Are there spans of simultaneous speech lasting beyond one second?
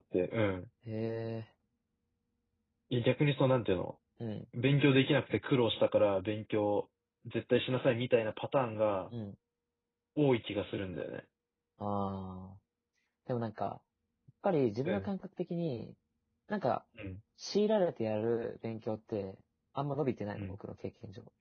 No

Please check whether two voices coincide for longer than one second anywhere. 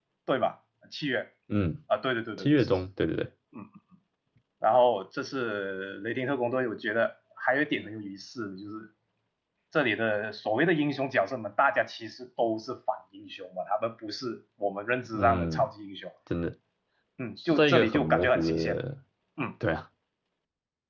Yes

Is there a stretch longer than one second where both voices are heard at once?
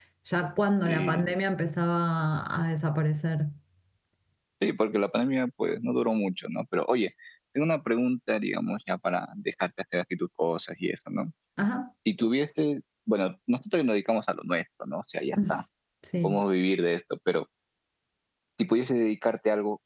No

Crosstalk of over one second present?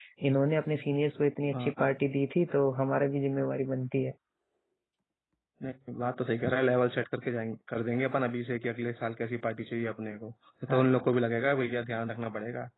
No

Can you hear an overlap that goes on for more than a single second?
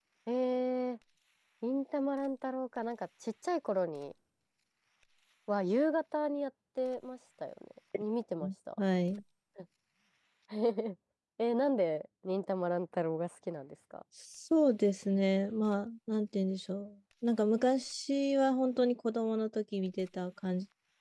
No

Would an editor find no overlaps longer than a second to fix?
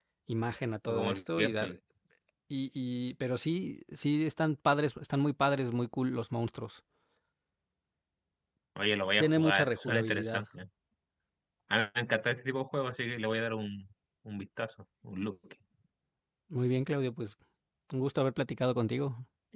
No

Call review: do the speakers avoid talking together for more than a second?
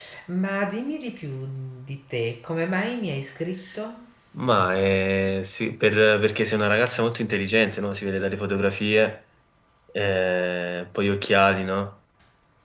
Yes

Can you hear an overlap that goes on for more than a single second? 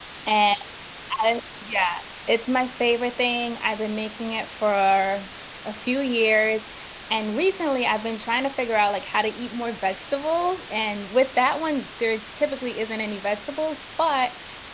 No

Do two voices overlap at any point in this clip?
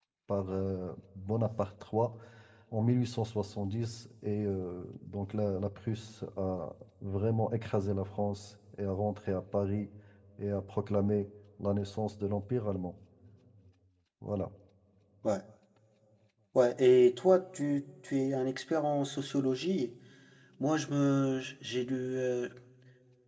No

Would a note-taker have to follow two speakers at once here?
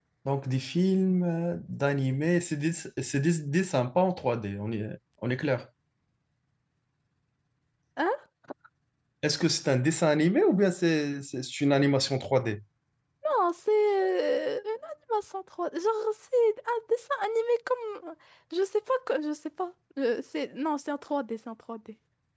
No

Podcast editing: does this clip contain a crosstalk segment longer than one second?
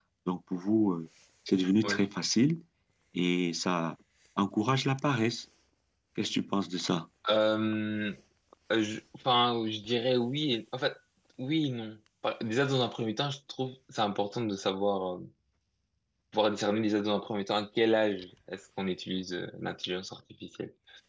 No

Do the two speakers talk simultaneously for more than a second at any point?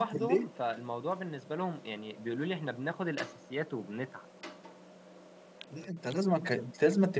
No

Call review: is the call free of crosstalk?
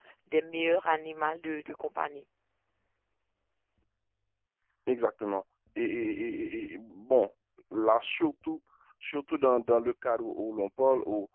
Yes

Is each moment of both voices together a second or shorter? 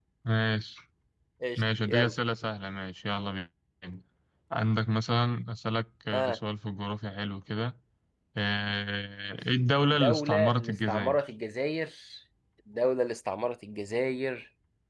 No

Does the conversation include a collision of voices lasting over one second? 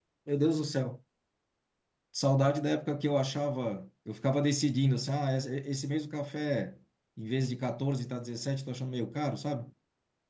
No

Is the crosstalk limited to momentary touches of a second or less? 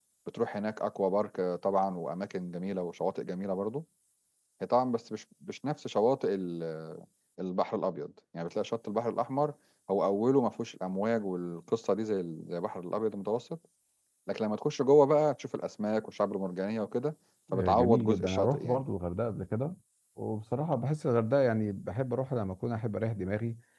No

